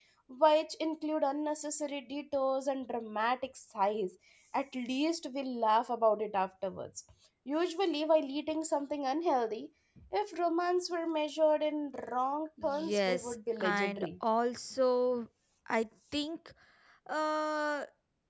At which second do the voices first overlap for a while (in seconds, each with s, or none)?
12.6 s